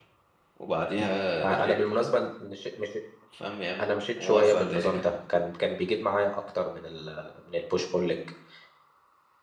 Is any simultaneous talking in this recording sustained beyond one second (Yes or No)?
Yes